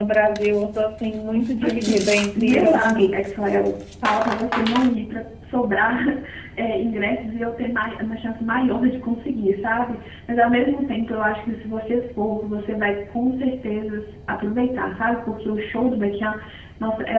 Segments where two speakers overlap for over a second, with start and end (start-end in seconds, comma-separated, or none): 1.6-3.2